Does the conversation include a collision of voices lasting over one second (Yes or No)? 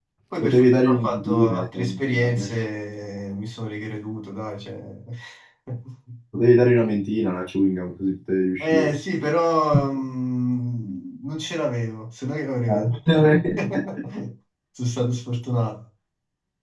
Yes